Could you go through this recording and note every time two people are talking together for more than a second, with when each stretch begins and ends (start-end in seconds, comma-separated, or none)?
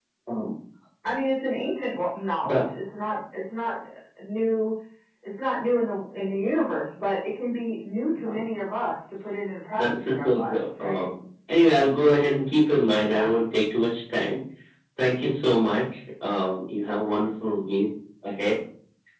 9.8-11.1